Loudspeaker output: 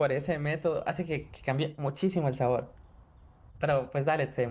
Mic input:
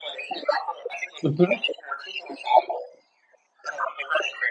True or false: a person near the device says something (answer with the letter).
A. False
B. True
B